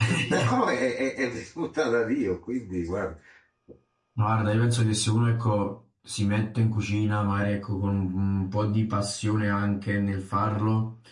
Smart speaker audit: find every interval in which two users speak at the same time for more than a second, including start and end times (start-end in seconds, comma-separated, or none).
none